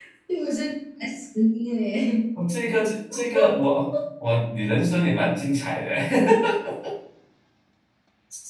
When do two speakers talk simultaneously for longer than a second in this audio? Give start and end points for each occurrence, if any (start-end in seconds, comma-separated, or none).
none